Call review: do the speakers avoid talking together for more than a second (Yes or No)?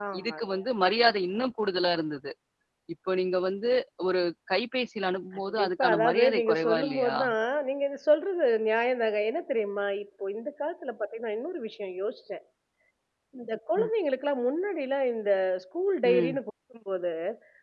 No